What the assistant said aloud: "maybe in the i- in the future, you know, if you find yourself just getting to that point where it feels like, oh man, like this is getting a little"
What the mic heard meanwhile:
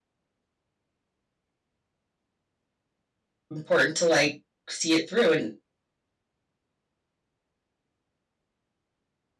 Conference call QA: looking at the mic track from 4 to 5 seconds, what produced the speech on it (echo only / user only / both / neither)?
user only